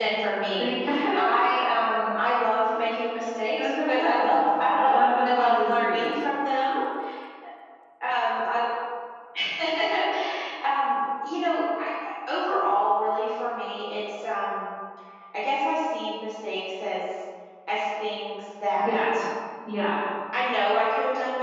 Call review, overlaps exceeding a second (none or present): present